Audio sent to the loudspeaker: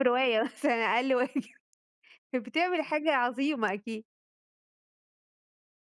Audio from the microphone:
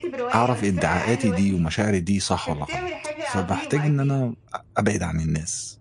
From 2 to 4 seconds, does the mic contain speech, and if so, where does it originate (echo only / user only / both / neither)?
both